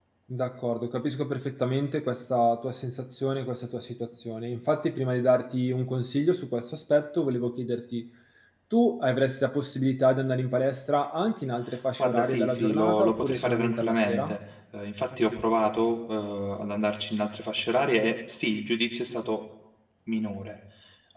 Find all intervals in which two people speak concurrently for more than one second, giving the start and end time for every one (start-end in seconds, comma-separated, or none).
12.0-14.4